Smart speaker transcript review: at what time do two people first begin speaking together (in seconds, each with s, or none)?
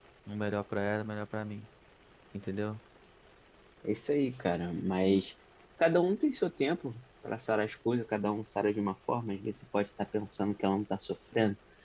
none